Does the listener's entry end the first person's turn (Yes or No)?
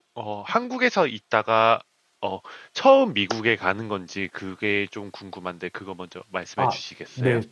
Yes